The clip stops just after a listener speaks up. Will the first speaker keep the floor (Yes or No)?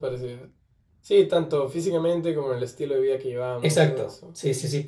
No